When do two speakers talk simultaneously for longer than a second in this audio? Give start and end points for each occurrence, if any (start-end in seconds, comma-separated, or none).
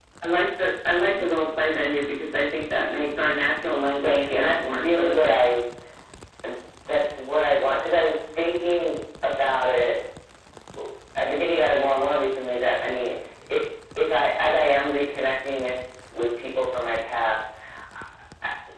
4.0-5.3